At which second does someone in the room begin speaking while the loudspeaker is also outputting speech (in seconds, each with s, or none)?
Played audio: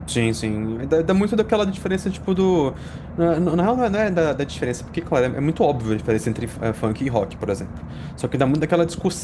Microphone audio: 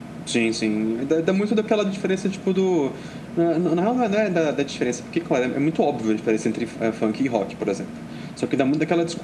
none